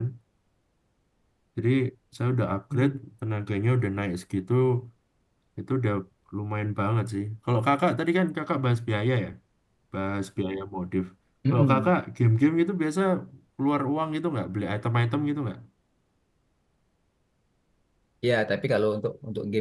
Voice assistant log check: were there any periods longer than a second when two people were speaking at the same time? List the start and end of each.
none

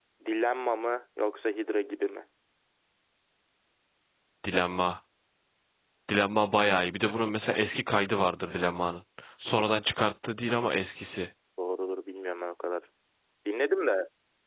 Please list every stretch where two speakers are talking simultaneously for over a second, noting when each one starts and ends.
none

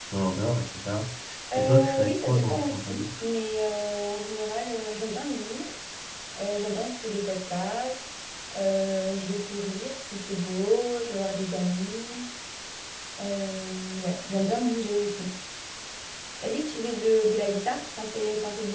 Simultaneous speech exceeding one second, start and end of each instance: 1.6-3.2

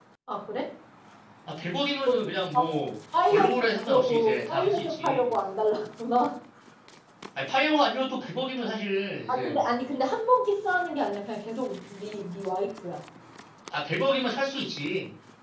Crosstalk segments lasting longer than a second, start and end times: 3.3-5.3

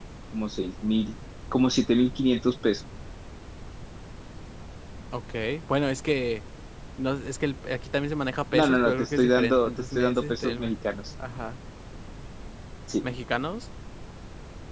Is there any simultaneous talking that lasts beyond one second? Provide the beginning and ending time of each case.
8.5-10.8

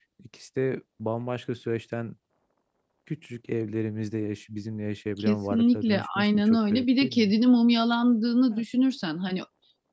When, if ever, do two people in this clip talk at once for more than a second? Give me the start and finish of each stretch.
5.2-7.3

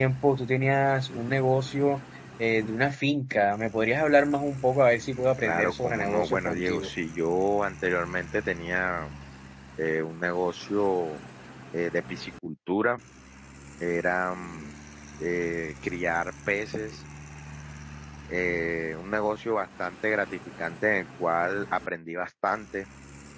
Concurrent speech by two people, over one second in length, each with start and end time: 5.4-6.9

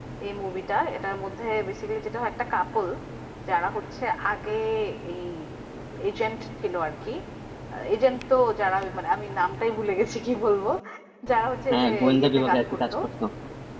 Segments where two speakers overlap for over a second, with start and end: 11.7-12.9

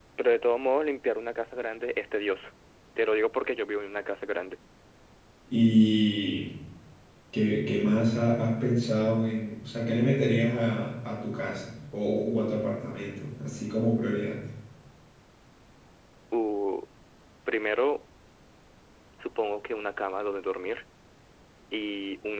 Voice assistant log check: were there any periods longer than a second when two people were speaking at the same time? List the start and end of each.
none

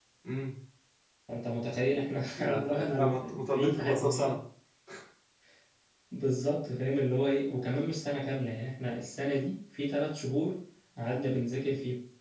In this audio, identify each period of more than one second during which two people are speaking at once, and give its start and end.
2.4-4.3

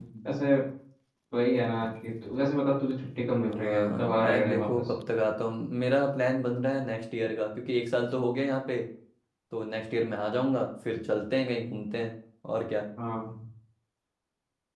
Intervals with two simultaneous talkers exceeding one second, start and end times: 3.4-4.9

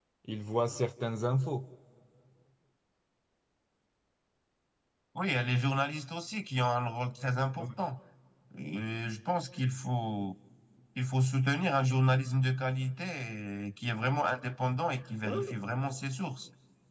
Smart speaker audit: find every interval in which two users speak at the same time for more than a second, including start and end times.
none

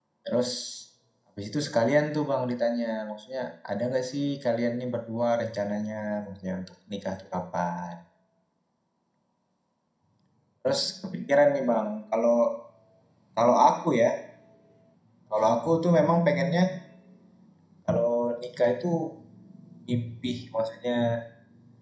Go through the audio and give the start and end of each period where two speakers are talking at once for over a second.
none

